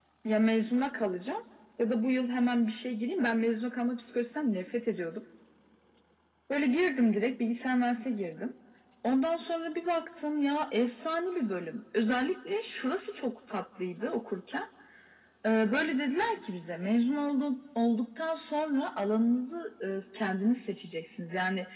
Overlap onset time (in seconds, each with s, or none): none